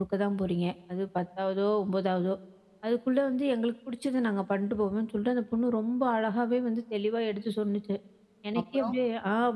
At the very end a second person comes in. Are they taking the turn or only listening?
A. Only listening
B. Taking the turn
A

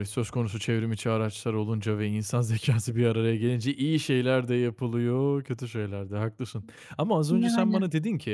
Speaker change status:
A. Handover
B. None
B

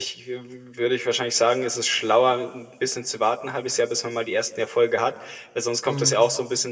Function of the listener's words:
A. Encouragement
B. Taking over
A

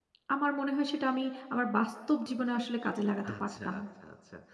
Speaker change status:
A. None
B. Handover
B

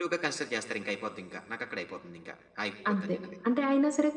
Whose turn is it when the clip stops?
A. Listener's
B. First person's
A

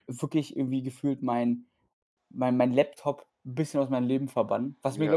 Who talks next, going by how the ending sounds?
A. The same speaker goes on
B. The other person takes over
A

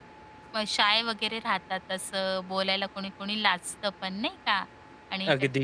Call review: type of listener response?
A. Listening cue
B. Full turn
A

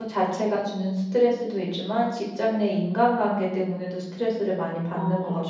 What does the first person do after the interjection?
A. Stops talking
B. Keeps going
A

